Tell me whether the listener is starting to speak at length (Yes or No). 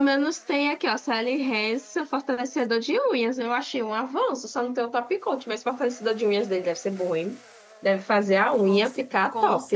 Yes